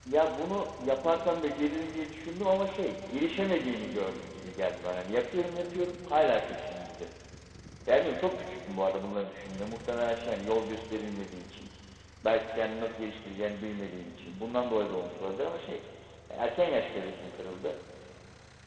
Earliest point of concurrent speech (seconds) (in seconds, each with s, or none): none